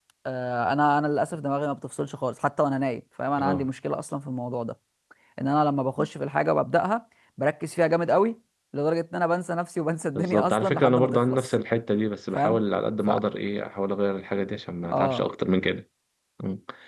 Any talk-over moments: Yes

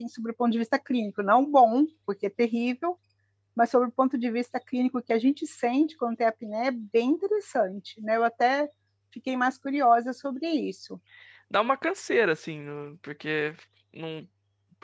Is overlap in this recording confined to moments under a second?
Yes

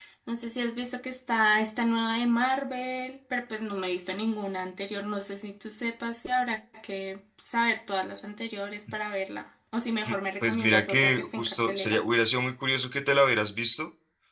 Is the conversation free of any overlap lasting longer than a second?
No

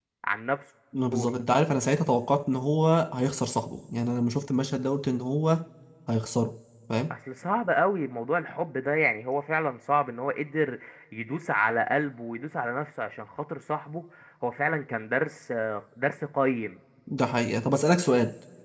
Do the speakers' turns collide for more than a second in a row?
No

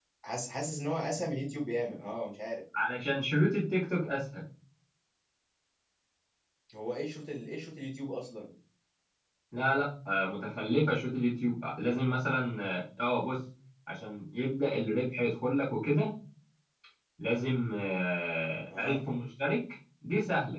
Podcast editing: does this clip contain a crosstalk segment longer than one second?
No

